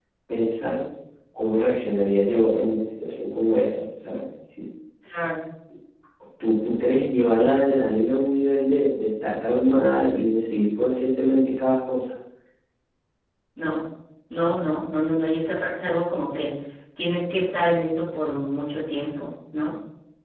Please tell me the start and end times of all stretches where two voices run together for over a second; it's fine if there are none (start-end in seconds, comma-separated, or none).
none